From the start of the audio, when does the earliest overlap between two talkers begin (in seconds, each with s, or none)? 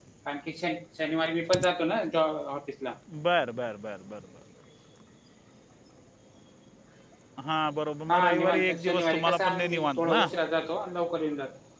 8.1 s